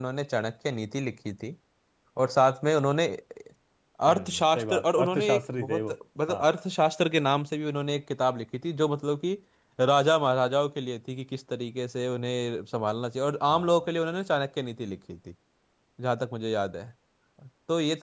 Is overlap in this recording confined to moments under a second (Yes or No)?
No